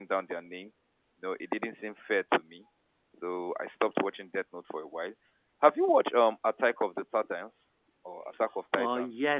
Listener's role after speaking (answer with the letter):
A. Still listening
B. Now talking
B